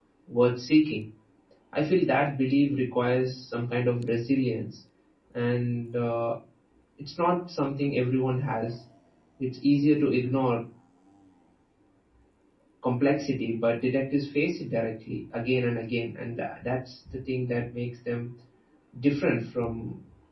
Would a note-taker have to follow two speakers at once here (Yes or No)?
No